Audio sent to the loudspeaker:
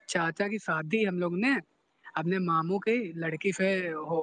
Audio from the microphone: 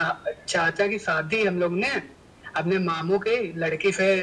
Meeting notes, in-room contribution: none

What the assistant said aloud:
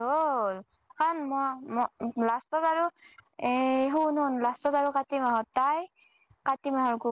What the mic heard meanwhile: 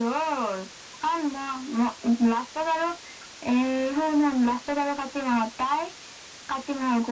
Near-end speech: none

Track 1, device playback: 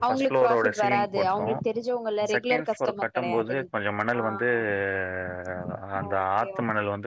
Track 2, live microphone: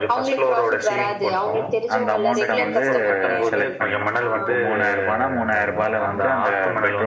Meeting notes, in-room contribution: present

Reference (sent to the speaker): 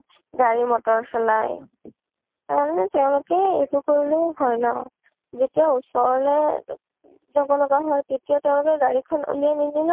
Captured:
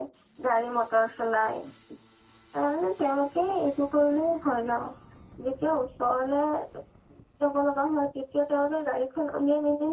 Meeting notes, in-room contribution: none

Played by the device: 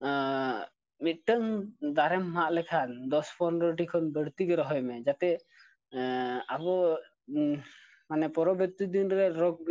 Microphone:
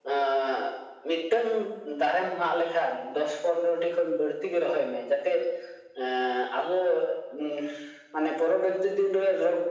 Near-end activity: none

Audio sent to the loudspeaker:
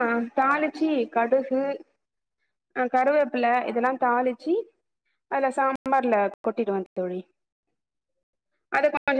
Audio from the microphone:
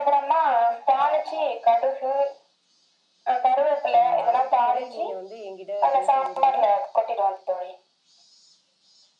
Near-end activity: present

